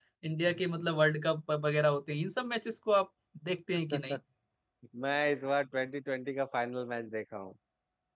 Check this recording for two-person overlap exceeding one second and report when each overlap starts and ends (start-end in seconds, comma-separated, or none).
none